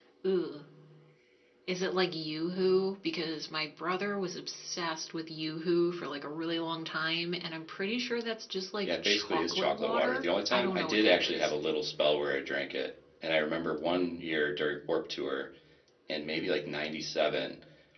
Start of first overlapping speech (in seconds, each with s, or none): 8.8 s